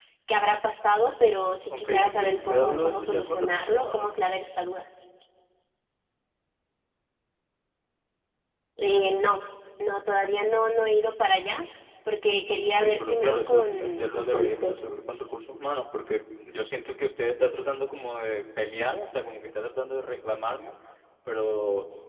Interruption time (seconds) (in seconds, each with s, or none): 1.7 s